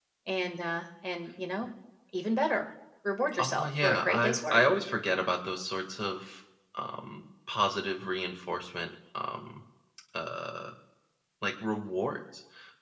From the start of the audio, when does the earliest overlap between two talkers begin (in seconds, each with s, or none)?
3.4 s